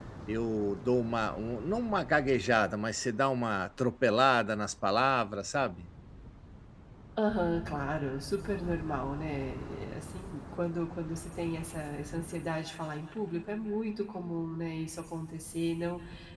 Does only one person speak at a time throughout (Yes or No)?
Yes